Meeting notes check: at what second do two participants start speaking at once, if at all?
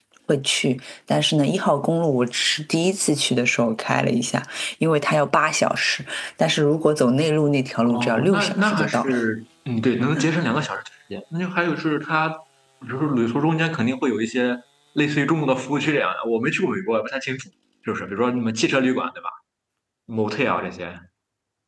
7.8 s

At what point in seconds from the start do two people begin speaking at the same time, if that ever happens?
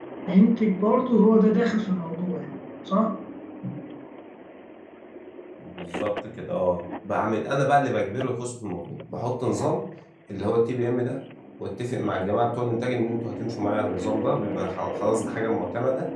none

